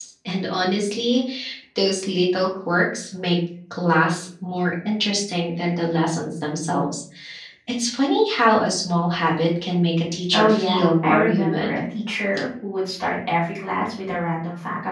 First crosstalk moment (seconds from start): 10.3 s

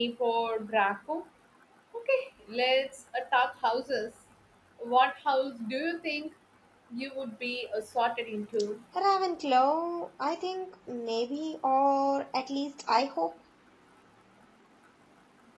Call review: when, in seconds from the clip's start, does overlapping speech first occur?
none

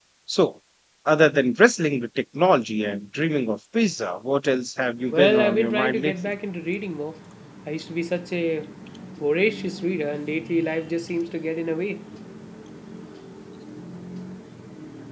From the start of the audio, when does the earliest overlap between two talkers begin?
5.1 s

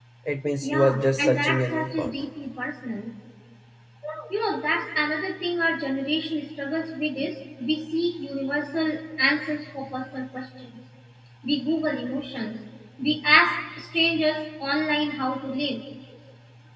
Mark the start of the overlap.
0.6 s

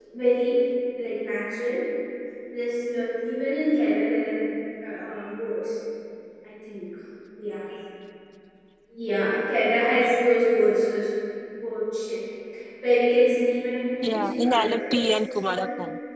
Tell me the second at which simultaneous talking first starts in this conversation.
14.0 s

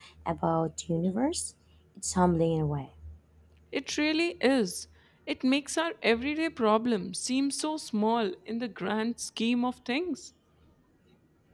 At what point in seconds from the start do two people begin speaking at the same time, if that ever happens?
none

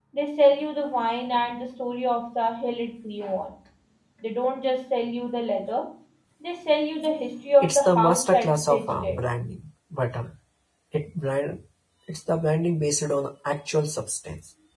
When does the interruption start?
7.6 s

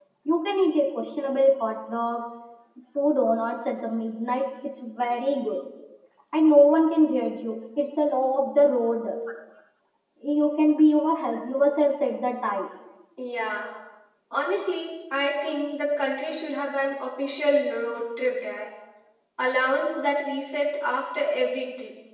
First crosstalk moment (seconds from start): none

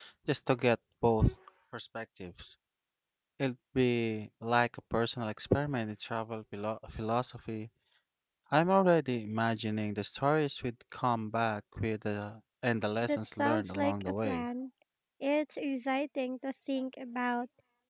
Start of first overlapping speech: 13.0 s

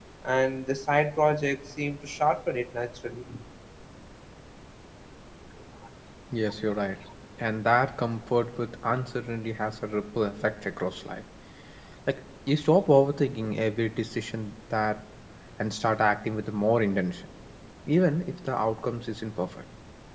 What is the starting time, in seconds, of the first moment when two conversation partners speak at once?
none

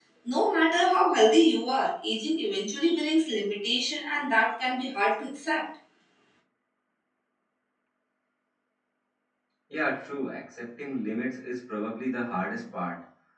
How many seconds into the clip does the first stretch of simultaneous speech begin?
none

